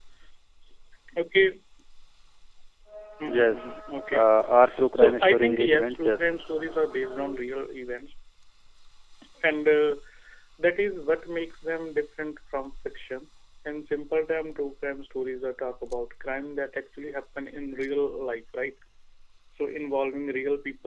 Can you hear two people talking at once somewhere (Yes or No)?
Yes